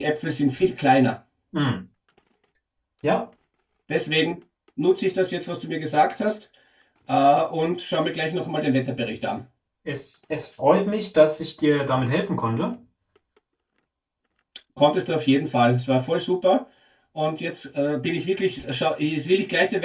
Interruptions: none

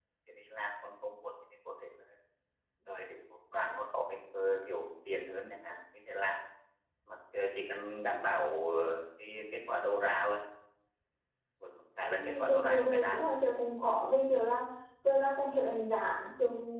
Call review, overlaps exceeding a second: present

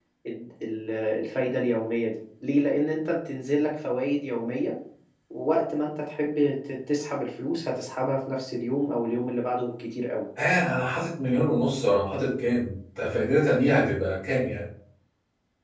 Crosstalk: none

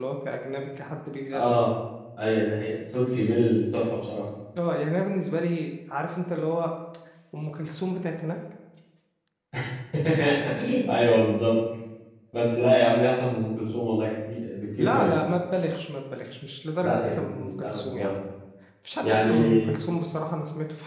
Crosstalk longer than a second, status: present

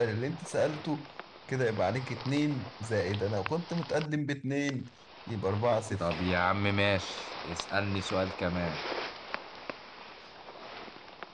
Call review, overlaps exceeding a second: none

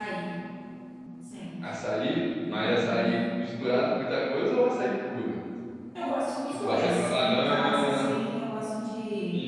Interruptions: present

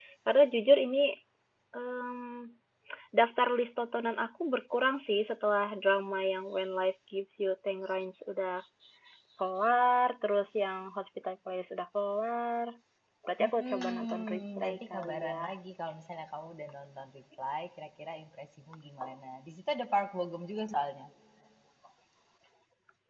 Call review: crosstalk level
present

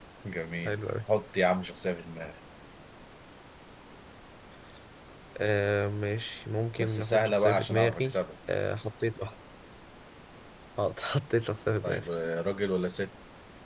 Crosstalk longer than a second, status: present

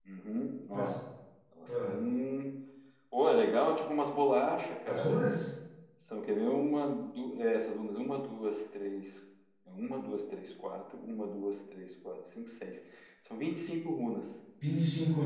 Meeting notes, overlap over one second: none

